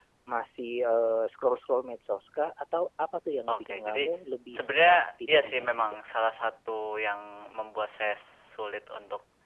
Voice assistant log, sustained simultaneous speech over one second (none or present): present